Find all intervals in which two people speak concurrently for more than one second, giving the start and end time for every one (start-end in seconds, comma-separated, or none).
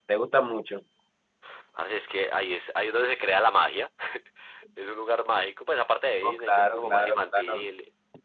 6.2-7.6